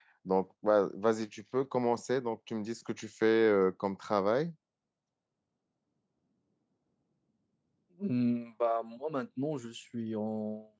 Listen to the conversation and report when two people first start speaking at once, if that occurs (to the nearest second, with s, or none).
none